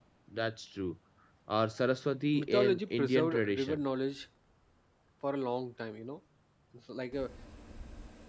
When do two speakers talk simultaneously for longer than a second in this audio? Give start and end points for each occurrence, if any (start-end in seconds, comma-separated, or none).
2.3-3.8